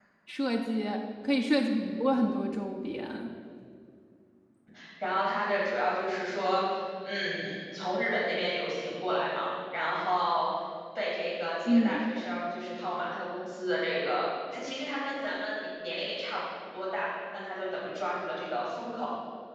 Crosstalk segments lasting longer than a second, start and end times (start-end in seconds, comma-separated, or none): none